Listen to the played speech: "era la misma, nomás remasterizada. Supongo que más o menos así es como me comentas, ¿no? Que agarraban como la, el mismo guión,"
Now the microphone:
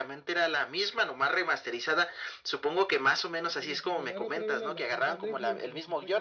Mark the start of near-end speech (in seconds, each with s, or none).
3.4 s